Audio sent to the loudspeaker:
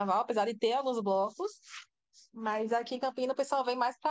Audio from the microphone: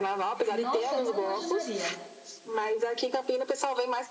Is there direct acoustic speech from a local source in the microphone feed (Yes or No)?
Yes